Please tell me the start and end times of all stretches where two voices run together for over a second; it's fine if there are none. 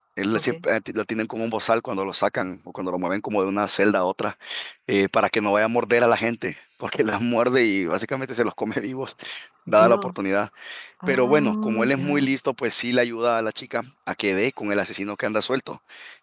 11.1-12.3

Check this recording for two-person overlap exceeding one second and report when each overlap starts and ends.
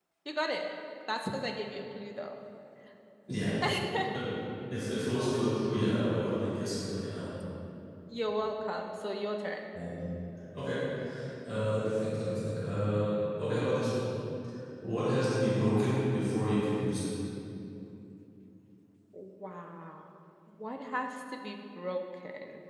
none

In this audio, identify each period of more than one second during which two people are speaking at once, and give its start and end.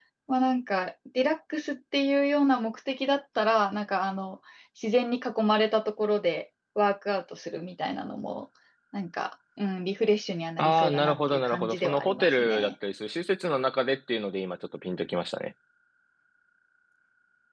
10.6-12.7

